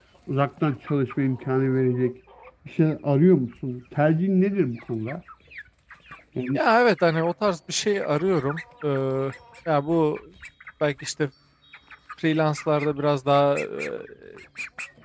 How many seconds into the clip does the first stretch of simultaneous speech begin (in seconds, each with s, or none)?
none